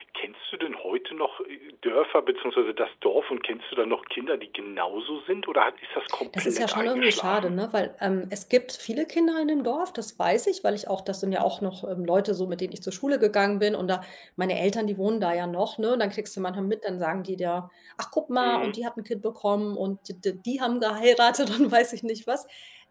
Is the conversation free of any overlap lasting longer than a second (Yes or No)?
No